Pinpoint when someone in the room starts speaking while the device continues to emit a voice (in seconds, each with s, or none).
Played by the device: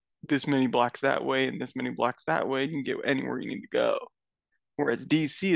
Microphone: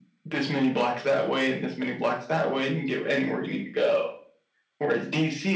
none